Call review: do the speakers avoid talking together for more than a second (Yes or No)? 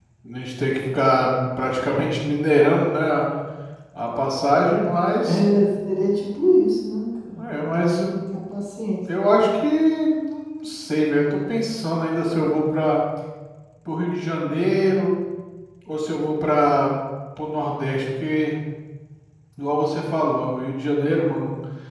Yes